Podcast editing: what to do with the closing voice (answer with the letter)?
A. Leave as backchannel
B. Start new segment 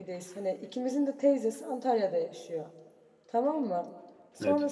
A